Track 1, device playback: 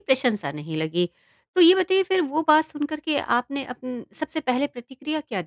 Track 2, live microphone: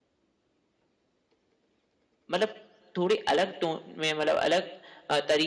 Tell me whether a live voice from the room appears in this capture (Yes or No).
Yes